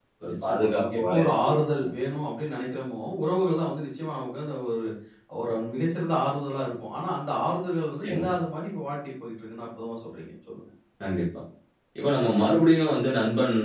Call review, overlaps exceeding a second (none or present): present